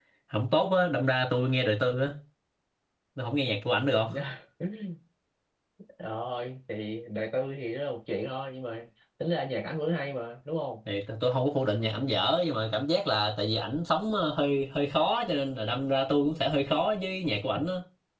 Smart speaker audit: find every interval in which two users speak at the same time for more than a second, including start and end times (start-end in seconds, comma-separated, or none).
none